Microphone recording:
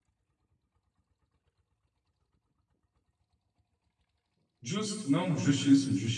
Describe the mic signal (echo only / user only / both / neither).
user only